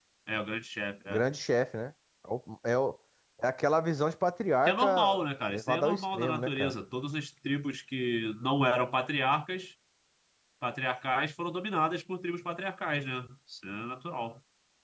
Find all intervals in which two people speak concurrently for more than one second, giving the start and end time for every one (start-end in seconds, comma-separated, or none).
4.7-6.7